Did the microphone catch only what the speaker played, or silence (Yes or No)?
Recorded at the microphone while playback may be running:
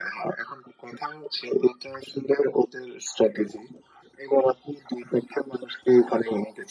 Yes